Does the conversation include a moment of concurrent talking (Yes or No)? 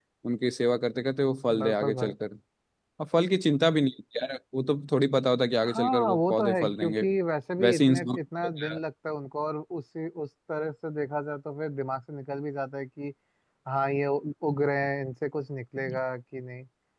Yes